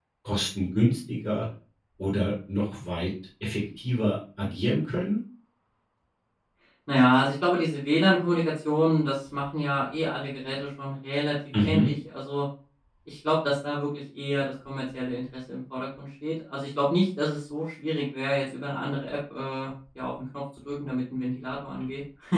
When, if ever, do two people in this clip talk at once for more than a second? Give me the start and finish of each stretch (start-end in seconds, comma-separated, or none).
none